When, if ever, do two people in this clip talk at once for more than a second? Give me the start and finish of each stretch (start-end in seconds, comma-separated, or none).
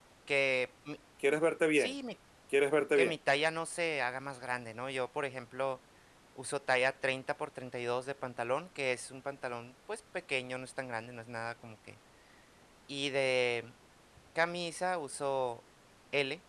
none